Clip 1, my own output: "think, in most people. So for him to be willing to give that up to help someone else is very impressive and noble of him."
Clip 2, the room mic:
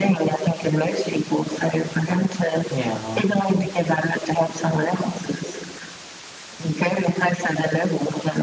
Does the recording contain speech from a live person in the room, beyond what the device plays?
Yes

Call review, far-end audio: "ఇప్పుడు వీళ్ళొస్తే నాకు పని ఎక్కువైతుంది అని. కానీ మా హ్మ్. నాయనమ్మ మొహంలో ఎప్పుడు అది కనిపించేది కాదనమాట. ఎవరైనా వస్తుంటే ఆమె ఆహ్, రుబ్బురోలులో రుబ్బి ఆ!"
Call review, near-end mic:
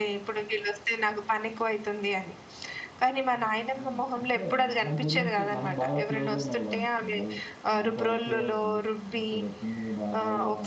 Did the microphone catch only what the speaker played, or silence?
No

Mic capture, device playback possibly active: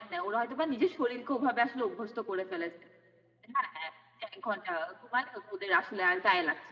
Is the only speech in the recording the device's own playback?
Yes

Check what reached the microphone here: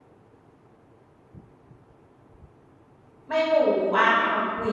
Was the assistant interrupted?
Yes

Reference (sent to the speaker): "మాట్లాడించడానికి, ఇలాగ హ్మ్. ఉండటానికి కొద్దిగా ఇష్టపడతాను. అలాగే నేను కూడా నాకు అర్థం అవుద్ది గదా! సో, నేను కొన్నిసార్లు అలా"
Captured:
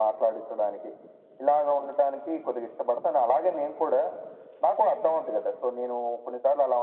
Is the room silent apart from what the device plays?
Yes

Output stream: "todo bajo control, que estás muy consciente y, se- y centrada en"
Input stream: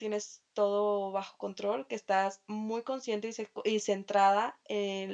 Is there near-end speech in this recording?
No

